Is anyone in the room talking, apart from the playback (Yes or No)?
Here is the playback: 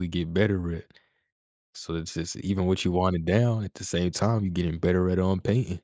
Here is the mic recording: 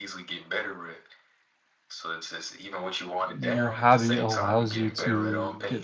Yes